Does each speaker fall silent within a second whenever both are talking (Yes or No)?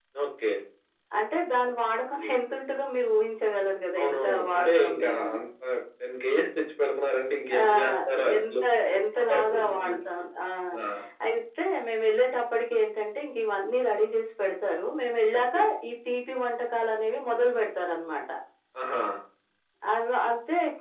No